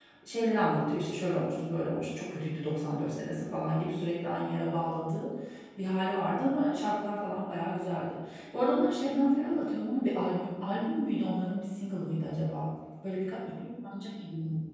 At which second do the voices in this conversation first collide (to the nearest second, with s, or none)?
none